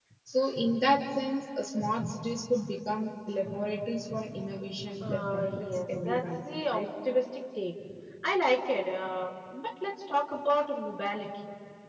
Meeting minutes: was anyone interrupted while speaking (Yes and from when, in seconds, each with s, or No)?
Yes, from 5.0 s